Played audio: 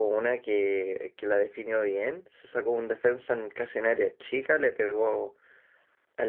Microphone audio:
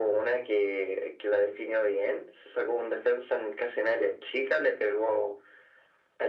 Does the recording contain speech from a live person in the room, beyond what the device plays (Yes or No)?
No